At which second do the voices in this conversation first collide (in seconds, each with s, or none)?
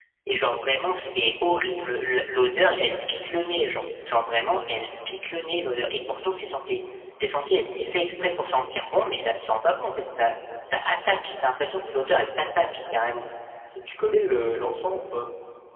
none